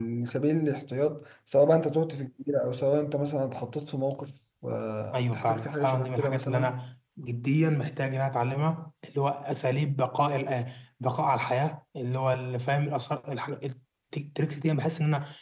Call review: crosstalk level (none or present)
present